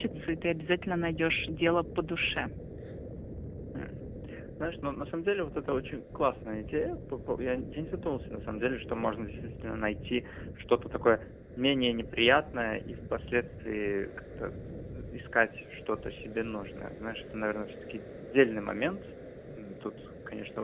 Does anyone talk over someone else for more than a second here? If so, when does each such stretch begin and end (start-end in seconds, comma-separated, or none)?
none